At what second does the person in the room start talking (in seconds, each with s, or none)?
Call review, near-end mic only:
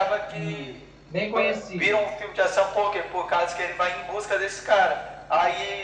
0.3 s